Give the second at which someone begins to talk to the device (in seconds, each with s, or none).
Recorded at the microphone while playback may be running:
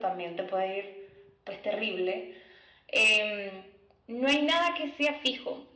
none